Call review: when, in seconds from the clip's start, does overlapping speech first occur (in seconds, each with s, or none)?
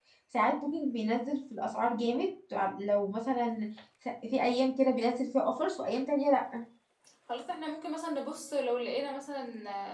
none